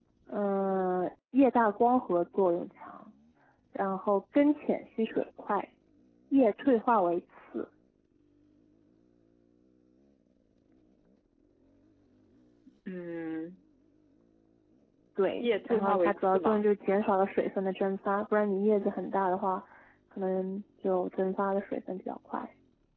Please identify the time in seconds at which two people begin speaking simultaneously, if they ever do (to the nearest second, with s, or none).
15 s